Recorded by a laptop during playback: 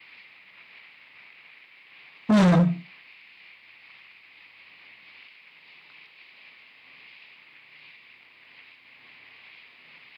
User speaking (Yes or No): Yes